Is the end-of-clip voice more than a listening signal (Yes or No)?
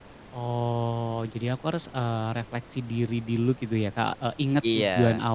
No